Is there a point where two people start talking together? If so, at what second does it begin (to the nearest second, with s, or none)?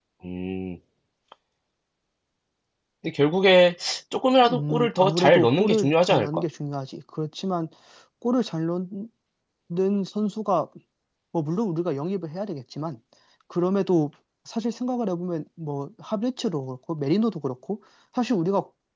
4 s